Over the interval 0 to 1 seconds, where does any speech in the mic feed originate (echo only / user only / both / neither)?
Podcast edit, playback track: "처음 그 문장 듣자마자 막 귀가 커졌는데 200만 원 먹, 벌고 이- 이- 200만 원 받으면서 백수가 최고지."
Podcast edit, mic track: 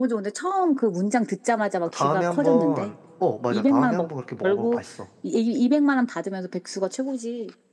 echo only